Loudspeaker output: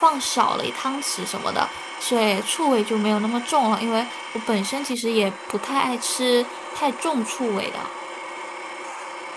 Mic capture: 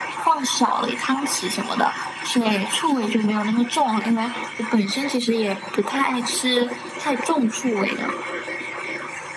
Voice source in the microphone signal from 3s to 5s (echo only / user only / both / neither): echo only